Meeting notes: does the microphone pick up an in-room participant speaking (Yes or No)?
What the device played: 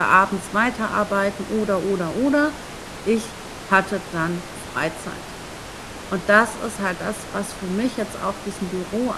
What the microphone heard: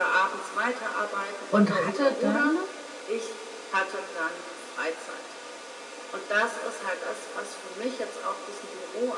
Yes